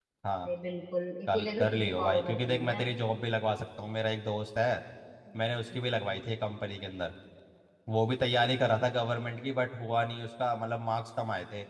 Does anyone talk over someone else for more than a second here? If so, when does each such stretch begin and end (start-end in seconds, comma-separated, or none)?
1.3-2.8